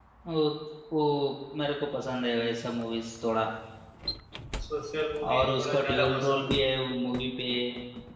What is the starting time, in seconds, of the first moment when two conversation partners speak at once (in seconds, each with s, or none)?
5.3 s